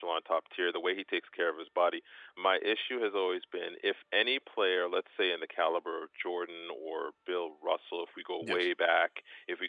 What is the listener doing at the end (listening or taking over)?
listening